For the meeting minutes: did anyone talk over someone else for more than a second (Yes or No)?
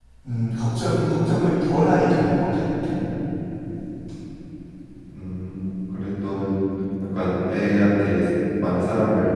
No